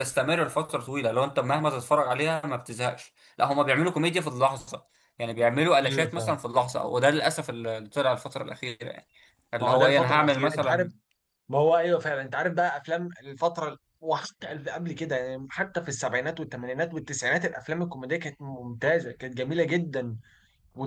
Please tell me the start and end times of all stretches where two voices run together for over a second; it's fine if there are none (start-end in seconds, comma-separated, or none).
9.6-10.9